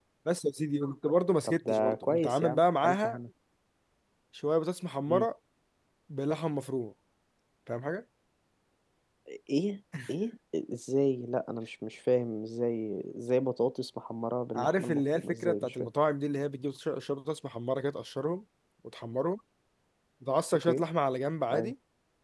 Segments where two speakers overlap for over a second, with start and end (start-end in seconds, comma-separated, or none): 1.4-3.2, 14.6-15.9